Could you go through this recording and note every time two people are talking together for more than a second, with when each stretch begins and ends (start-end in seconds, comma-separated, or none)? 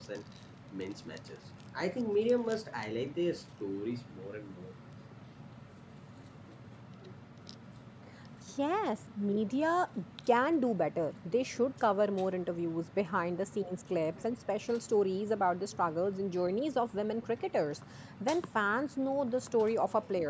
none